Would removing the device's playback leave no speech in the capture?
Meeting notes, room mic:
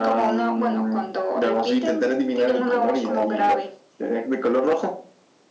Yes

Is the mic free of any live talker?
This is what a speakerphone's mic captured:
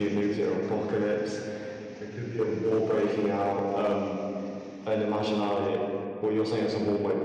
Yes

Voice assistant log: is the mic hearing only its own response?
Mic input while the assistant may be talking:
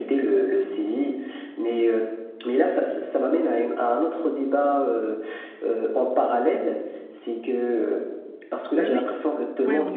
No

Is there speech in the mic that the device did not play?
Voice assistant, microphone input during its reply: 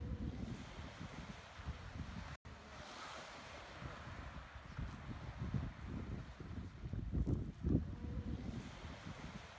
No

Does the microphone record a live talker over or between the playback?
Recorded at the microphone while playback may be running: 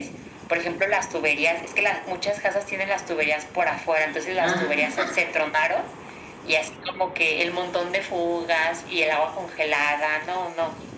Yes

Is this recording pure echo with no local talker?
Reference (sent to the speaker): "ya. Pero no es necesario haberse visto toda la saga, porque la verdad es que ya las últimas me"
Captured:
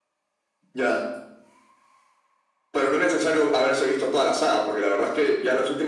Yes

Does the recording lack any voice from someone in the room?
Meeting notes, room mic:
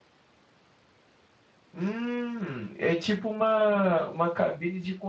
No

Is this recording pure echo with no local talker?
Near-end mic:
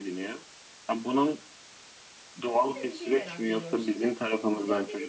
No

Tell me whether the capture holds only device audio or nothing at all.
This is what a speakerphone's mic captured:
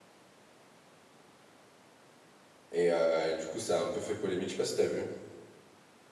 No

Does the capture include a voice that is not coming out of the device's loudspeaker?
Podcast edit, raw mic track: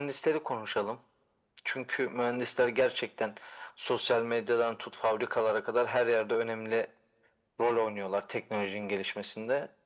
No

